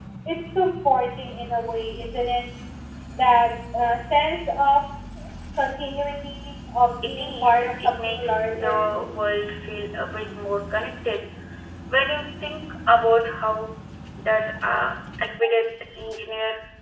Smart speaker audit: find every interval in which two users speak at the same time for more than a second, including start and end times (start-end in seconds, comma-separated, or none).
7.0-8.7